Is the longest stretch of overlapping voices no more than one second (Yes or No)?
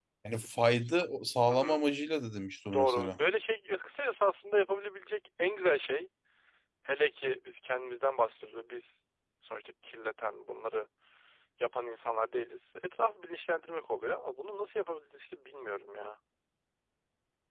Yes